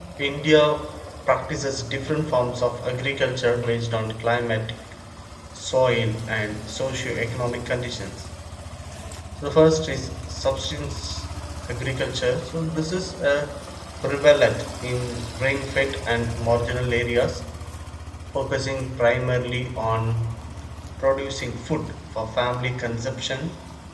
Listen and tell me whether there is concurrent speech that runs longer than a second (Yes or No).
No